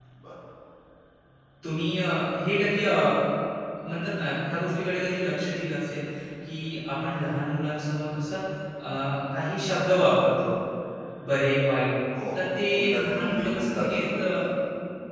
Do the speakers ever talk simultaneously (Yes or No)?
Yes